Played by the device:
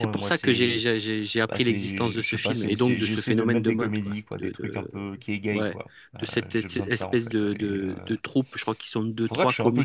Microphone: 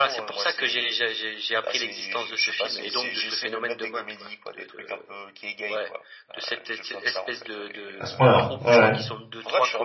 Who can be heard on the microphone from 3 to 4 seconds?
echo only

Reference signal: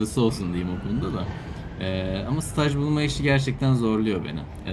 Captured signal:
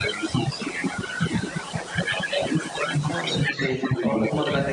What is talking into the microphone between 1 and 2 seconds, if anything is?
echo only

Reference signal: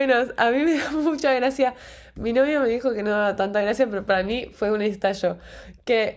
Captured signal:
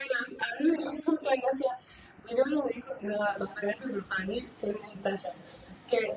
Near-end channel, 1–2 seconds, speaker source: echo only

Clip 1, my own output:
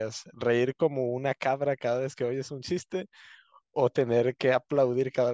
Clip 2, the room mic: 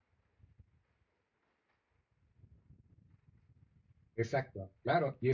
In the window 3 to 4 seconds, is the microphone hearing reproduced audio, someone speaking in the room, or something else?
neither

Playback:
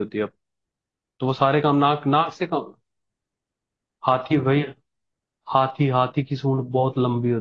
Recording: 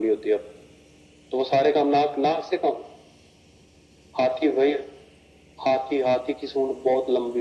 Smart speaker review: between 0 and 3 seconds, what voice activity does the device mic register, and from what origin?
echo only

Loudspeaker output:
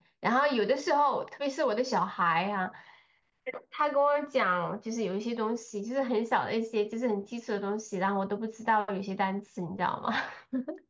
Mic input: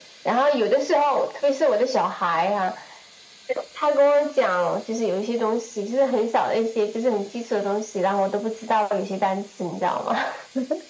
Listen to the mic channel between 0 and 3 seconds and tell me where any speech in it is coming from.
echo only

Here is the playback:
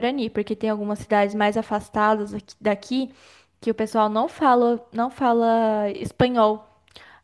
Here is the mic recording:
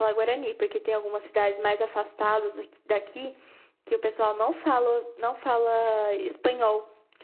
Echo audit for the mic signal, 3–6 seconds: echo only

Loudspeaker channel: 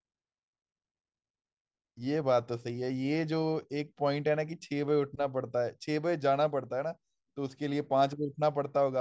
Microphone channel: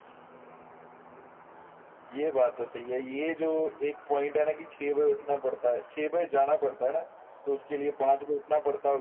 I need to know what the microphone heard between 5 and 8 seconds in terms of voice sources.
echo only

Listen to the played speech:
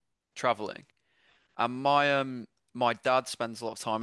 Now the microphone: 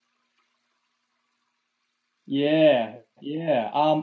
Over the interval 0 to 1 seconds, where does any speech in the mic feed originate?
neither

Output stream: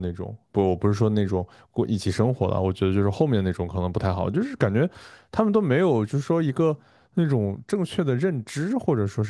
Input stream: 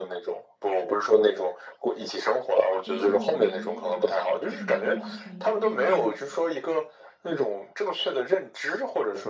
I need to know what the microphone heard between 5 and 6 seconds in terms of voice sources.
both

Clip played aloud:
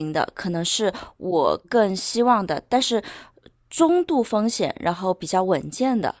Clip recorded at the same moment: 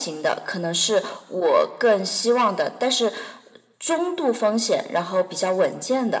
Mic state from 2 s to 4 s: echo only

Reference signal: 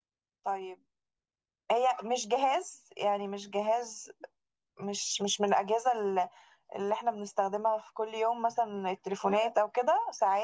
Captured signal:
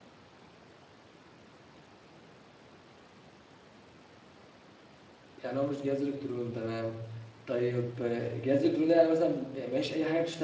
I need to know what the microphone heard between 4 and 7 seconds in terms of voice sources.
user only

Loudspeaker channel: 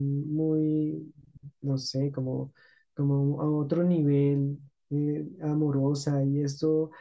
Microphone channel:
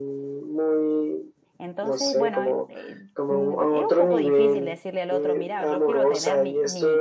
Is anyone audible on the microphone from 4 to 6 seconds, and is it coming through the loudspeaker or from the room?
both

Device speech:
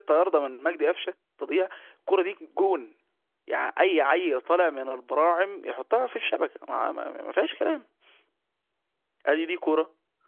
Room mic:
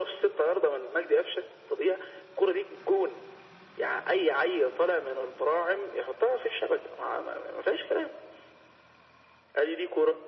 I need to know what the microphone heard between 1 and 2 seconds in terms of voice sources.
echo only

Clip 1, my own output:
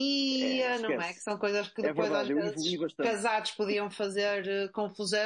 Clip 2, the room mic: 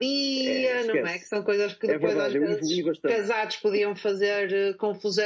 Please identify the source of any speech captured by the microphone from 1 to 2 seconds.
echo only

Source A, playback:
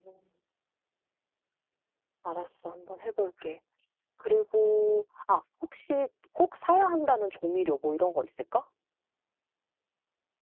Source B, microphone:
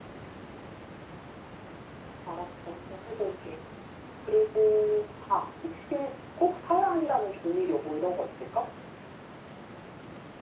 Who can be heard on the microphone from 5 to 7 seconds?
echo only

